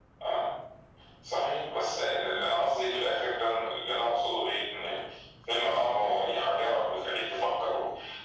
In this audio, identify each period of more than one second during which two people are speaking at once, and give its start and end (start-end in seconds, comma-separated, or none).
none